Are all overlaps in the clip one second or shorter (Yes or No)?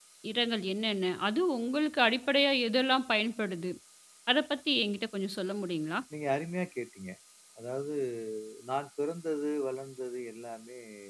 Yes